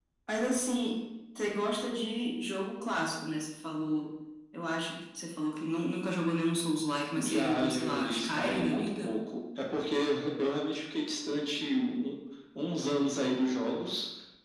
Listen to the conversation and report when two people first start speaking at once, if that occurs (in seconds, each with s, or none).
7.1 s